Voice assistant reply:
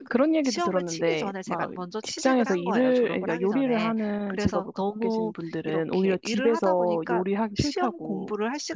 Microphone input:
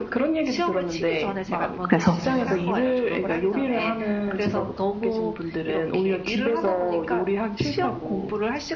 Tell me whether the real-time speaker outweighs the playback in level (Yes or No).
Yes